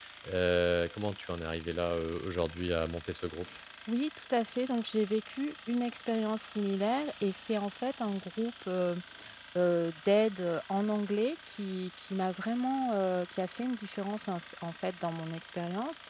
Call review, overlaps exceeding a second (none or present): none